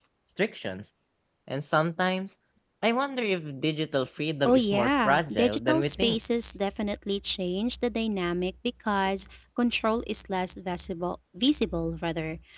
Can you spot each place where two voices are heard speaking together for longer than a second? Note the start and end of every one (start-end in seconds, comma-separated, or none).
4.4-6.2